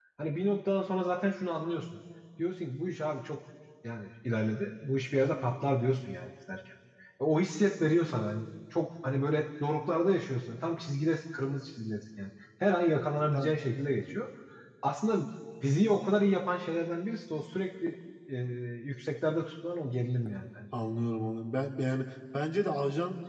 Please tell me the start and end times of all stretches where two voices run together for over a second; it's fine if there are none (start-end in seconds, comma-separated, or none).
none